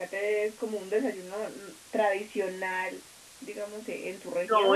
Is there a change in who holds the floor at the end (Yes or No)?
Yes